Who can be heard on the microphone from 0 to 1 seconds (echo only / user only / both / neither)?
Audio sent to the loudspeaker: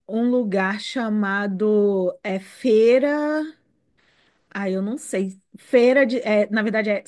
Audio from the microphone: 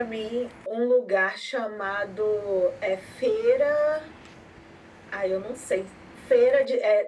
echo only